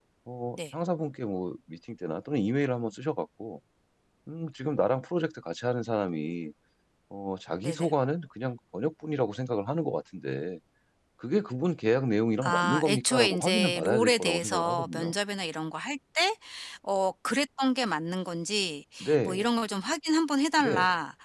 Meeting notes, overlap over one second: present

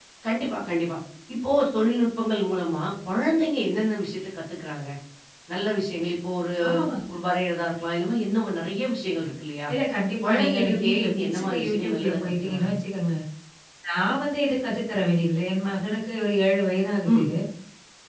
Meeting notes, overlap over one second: present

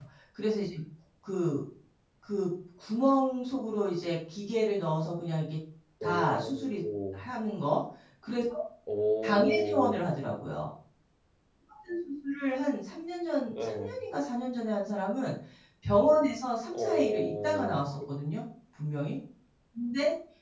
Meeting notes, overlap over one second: present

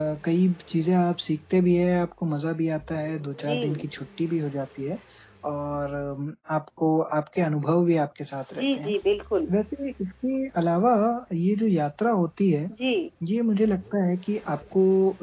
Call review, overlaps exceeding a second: none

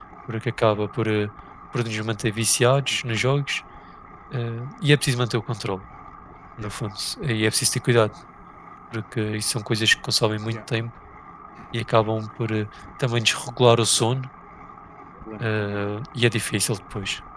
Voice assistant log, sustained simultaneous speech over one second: none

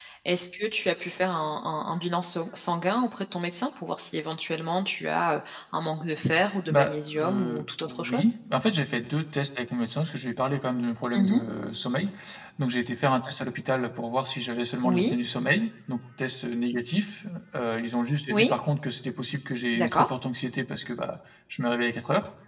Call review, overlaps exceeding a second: present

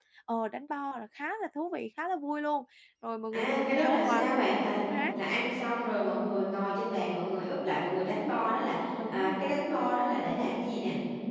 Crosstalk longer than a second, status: present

